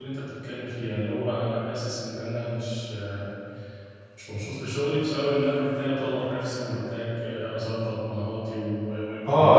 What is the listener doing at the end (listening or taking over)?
taking over